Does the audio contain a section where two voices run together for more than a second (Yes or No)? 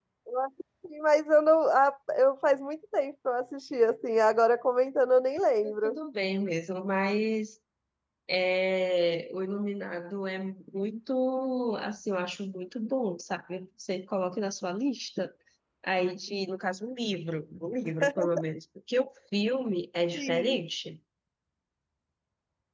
No